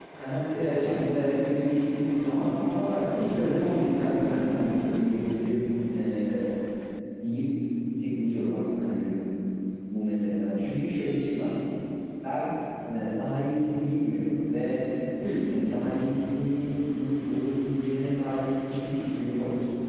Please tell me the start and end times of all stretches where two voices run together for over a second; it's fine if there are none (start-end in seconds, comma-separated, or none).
3.2-5.0